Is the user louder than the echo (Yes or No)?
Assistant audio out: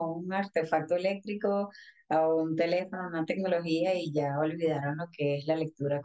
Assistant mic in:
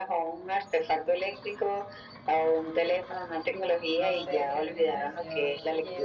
No